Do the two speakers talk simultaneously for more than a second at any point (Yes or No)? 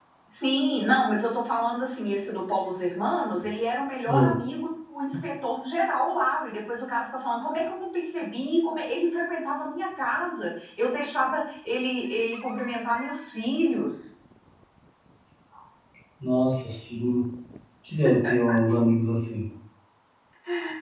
No